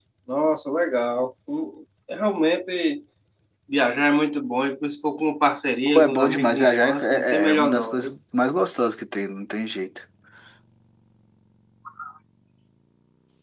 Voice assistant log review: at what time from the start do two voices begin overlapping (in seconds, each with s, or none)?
5.9 s